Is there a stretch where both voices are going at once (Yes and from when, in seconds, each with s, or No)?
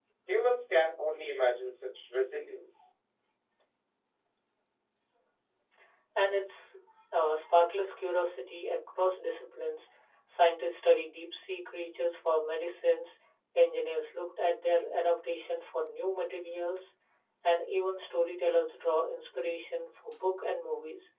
No